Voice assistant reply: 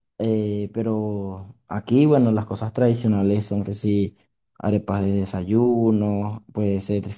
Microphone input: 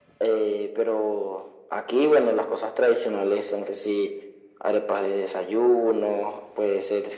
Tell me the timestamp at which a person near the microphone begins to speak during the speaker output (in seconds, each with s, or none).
none